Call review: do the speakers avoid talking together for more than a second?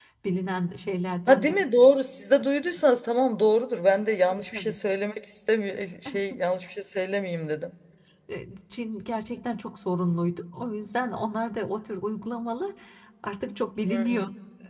Yes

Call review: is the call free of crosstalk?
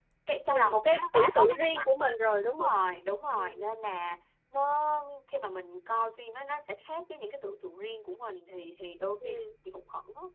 No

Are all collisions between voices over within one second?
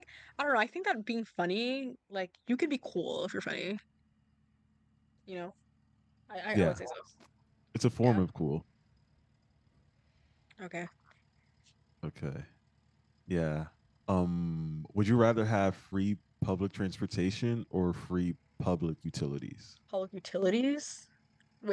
Yes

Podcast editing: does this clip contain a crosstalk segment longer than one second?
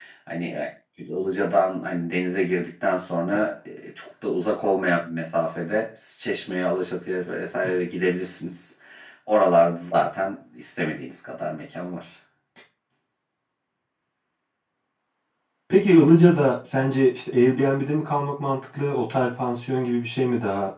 No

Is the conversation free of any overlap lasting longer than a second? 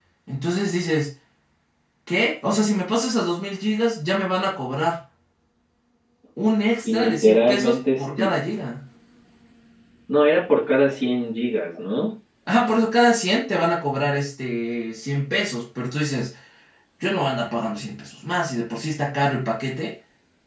No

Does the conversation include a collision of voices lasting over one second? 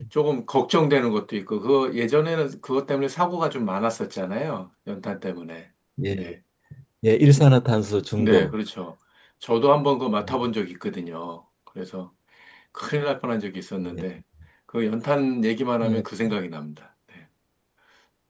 No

